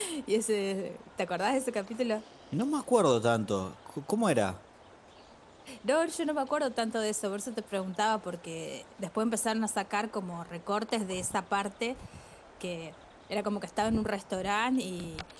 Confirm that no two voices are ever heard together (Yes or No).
Yes